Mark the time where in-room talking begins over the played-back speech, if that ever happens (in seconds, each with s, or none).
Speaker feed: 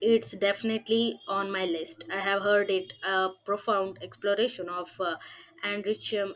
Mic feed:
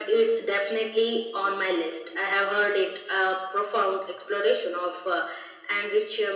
none